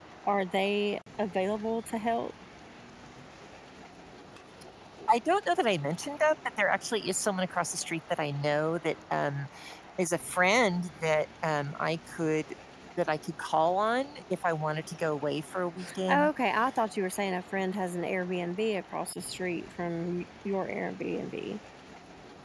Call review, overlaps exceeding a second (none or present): none